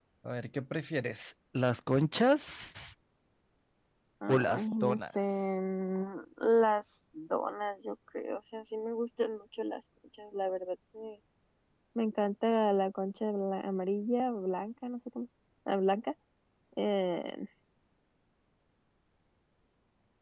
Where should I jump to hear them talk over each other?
4.3 s

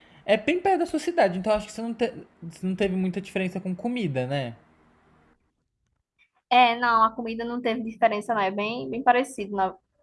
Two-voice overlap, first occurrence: none

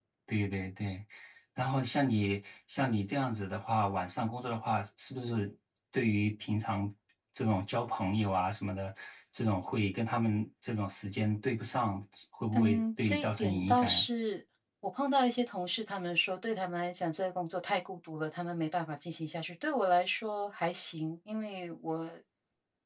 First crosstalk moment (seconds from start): 12.5 s

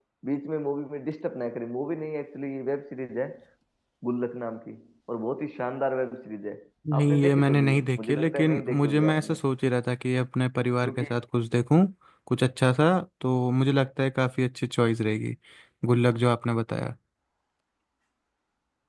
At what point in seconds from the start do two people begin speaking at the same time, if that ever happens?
7.0 s

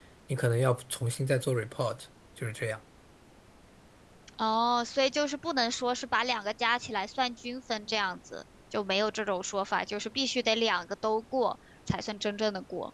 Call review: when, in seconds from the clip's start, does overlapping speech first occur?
none

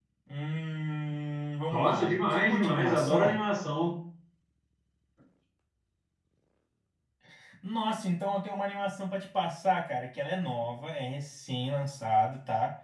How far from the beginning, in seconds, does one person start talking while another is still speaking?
1.7 s

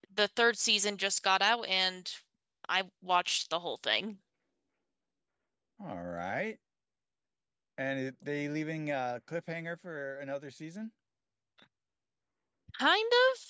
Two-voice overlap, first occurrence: none

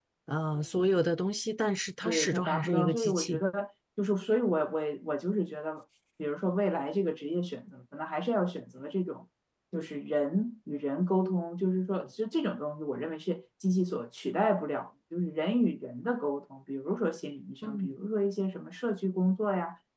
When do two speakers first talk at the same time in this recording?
2.0 s

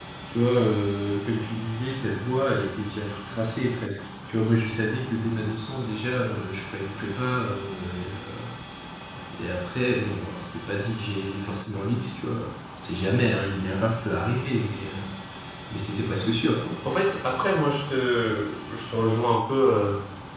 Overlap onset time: none

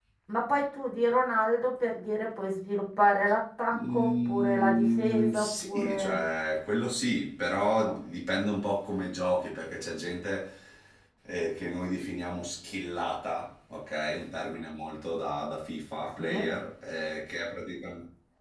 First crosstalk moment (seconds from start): 3.7 s

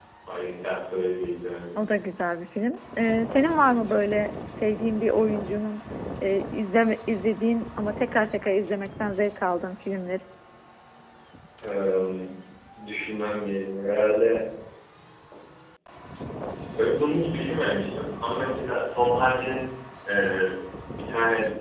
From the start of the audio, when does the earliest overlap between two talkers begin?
none

